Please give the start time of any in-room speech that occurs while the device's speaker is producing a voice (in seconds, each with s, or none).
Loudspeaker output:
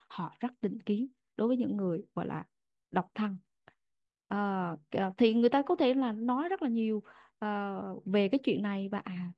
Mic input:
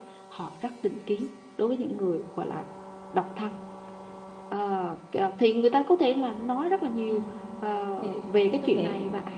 7.0 s